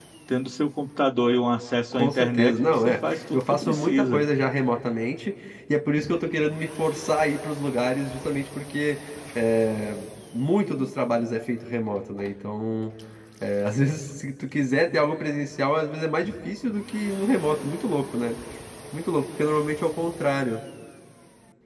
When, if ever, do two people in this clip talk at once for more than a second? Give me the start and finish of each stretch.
1.9-4.3

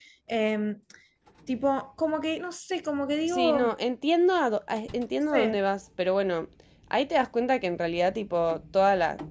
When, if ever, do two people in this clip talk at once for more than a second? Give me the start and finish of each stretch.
none

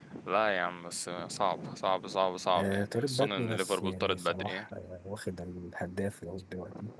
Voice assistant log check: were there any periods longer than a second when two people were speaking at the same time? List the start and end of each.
2.6-4.6

